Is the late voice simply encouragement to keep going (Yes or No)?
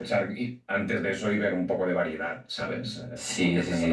No